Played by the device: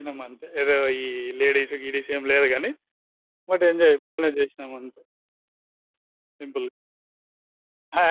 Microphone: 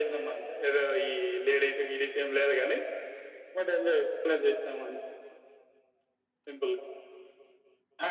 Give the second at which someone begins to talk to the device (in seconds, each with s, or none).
none